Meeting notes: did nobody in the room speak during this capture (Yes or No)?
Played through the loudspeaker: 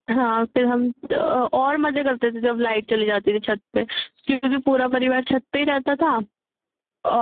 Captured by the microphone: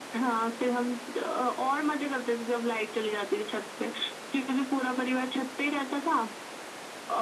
Yes